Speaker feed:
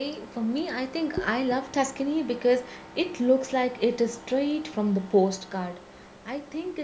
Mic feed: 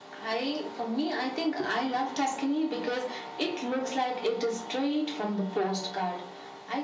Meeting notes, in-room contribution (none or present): none